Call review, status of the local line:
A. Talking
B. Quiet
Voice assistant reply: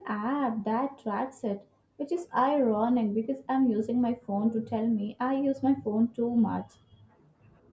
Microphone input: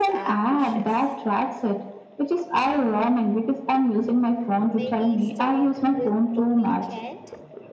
A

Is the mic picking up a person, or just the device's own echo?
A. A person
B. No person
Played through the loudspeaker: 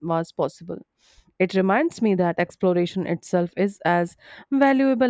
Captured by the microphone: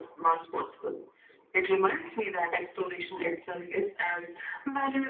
B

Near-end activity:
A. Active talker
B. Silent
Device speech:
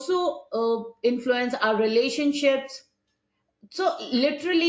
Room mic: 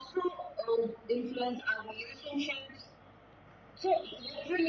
B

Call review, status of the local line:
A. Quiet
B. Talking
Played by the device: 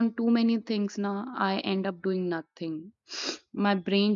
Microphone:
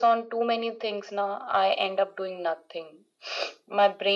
A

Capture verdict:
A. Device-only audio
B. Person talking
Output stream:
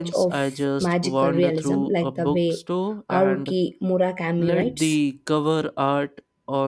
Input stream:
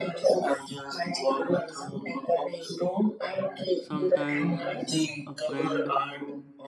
B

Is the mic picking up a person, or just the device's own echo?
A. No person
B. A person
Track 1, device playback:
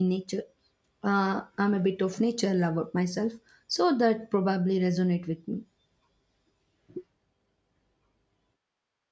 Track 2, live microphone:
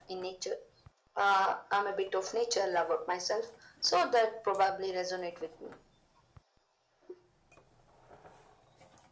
A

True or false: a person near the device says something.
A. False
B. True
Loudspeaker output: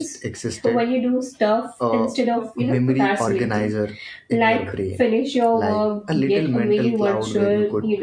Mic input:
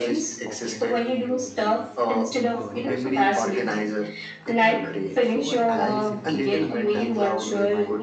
B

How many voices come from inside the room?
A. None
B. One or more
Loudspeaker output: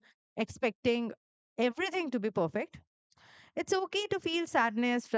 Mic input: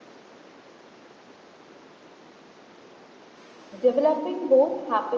B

